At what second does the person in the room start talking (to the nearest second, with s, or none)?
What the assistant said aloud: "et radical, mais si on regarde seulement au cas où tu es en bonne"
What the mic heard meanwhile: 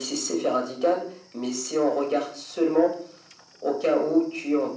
none